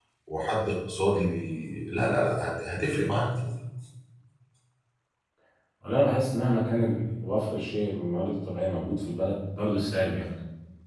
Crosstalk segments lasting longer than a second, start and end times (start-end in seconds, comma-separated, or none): none